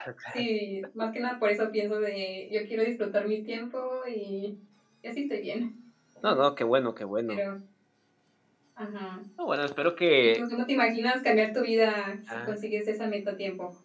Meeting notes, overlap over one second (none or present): none